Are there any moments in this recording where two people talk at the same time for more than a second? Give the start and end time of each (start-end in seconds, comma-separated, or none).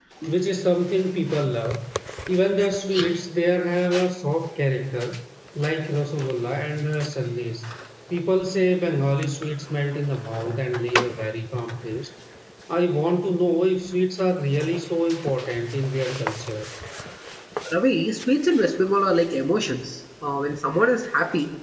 none